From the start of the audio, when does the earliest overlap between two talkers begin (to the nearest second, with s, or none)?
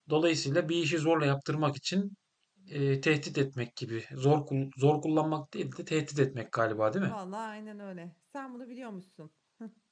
none